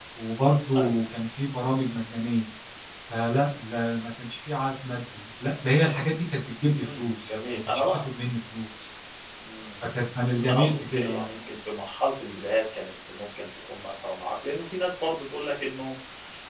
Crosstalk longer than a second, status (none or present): present